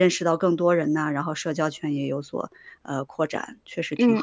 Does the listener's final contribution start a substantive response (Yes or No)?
Yes